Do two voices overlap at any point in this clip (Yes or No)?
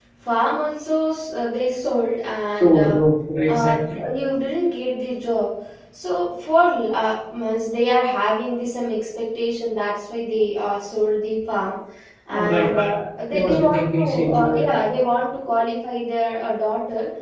Yes